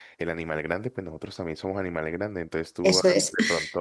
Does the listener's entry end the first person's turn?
No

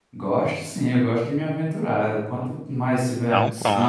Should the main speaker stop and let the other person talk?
No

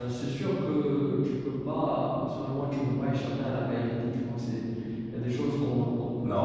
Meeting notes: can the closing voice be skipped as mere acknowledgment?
Yes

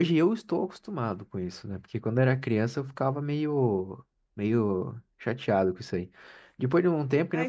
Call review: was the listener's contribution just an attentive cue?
No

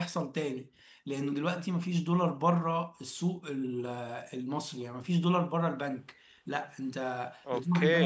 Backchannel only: Yes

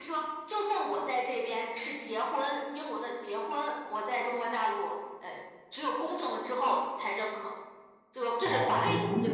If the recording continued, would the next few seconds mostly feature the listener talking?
Yes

